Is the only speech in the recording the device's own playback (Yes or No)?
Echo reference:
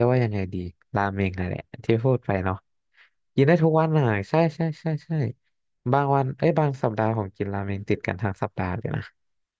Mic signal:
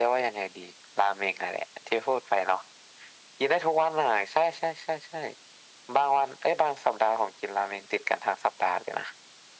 Yes